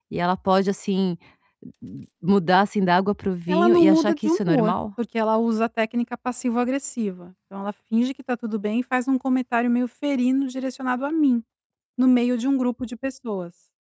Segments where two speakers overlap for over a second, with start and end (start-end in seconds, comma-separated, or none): 3.5-4.7